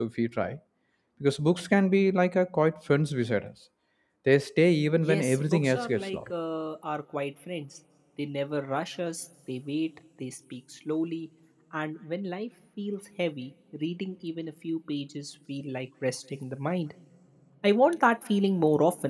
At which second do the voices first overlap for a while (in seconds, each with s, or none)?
5.0 s